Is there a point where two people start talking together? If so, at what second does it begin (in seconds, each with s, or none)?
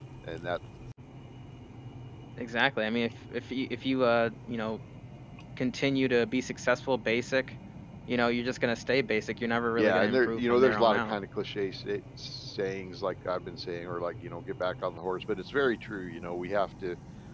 9.8 s